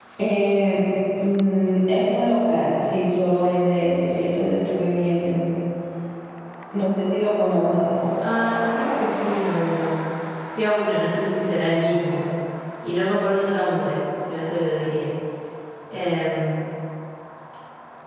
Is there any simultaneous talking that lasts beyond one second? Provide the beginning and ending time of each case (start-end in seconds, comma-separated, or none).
none